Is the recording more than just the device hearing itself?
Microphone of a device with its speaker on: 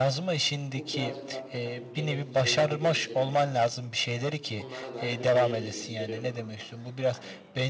Yes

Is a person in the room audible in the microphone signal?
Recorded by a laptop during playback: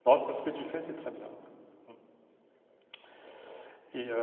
Yes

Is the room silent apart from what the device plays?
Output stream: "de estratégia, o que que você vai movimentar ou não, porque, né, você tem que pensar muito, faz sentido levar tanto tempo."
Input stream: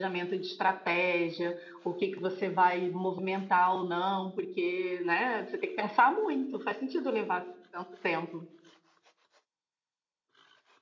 Yes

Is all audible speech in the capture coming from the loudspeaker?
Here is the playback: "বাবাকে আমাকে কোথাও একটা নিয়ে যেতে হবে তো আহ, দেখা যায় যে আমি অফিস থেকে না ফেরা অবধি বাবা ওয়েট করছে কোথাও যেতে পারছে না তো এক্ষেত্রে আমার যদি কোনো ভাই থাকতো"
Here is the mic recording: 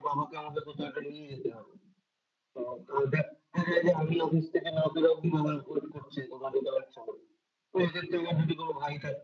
Yes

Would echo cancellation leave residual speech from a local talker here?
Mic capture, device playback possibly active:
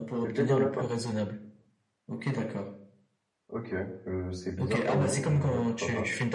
Yes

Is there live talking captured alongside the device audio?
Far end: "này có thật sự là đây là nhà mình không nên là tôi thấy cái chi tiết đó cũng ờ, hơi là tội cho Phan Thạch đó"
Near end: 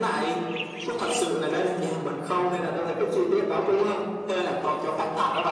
No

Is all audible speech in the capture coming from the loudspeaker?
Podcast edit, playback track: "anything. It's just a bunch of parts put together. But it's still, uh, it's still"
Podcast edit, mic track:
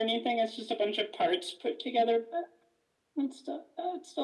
Yes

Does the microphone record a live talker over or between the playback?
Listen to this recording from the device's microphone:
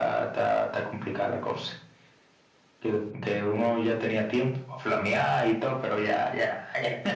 No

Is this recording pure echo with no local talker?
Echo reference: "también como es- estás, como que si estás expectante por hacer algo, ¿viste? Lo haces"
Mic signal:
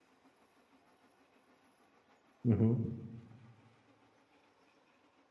No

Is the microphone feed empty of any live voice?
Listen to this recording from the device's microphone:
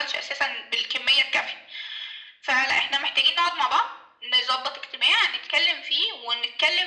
Yes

